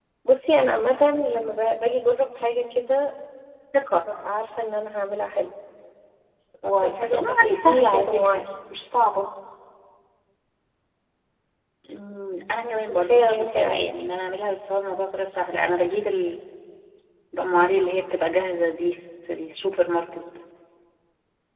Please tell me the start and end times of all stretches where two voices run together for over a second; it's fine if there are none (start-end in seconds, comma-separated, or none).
6.8-8.4, 12.6-13.8